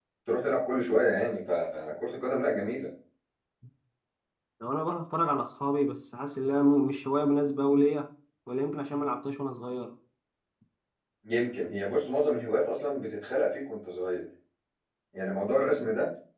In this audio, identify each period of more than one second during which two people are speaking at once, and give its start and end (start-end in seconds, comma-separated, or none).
none